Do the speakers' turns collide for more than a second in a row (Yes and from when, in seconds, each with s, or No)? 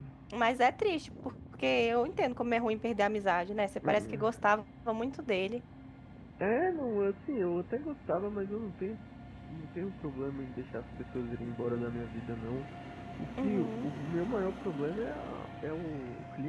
No